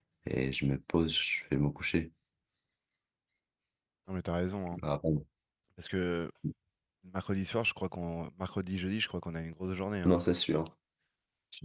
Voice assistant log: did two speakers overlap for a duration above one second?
No

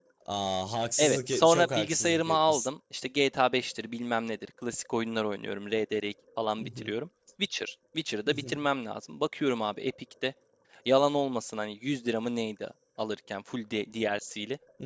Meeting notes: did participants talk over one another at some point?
Yes, from 1.0 s

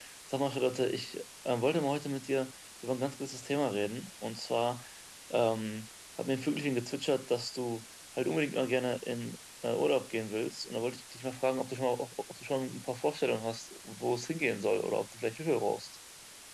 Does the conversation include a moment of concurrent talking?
No

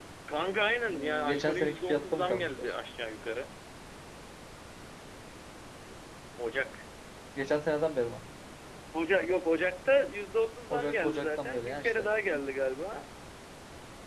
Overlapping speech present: Yes, from 0.9 s

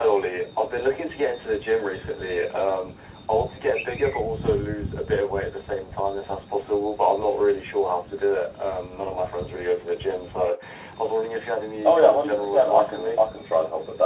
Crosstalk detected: Yes, from 11.8 s

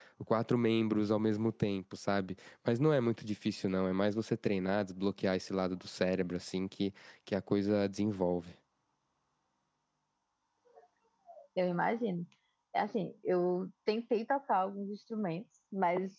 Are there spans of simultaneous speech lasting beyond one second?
No

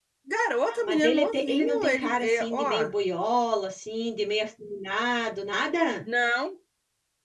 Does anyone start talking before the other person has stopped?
Yes, from 0.7 s

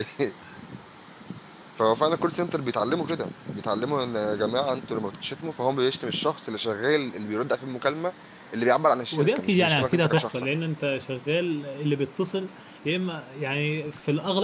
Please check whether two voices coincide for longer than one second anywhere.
Yes, from 9.1 s

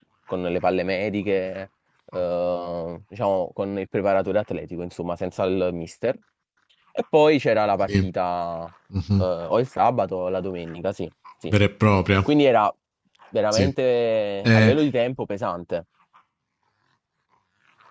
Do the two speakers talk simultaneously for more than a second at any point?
No

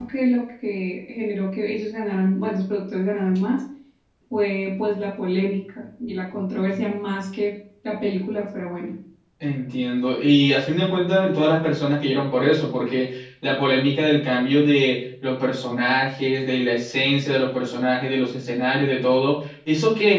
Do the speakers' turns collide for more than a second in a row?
No

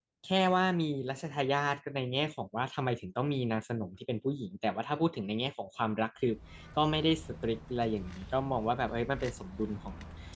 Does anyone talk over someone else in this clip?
No

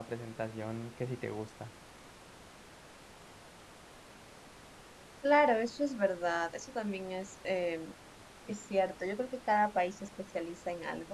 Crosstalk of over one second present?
No

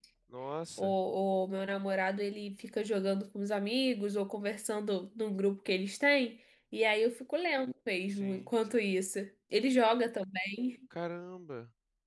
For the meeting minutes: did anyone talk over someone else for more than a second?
No

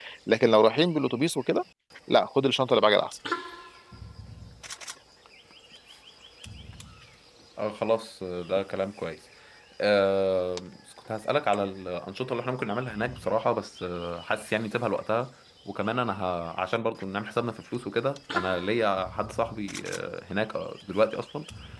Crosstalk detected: No

